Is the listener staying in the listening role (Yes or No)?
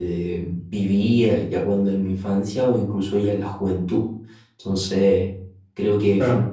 Yes